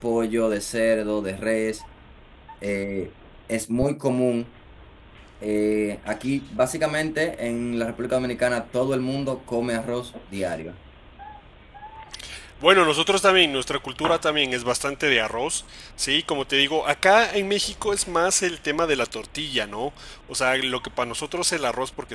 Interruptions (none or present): none